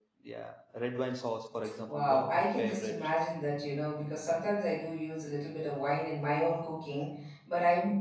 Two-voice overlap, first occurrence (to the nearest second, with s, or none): 2 s